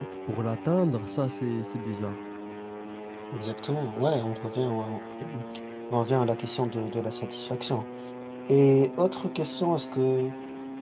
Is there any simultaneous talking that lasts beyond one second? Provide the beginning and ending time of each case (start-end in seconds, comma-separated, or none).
none